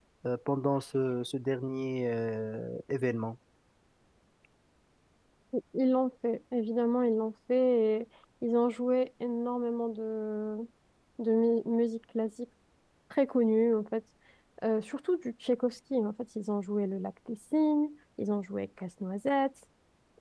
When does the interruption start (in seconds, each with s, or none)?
none